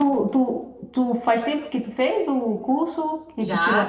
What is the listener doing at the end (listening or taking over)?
taking over